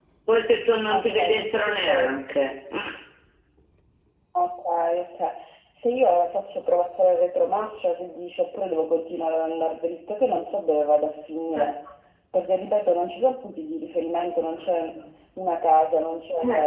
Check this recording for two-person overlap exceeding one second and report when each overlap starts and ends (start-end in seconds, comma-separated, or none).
0.9-2.1